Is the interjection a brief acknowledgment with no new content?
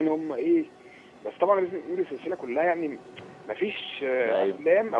Yes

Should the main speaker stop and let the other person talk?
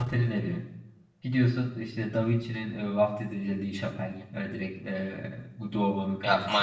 Yes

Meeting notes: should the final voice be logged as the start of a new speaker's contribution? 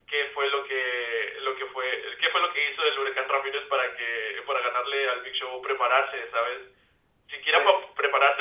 No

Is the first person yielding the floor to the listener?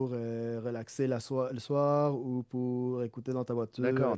Yes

